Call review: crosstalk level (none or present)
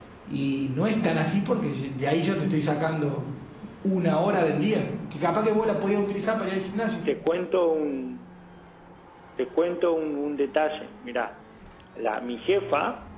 none